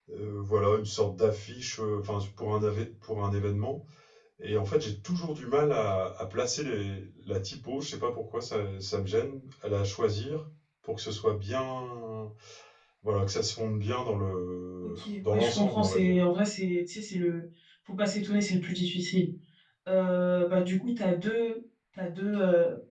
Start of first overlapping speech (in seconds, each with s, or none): 14.8 s